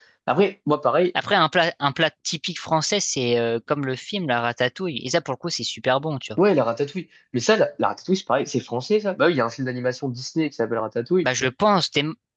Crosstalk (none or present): none